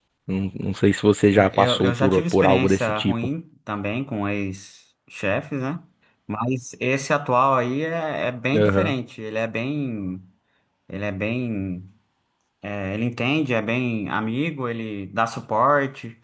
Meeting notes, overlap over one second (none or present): present